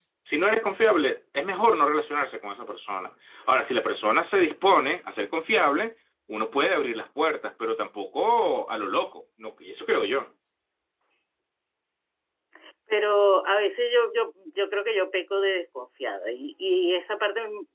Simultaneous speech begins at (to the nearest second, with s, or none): none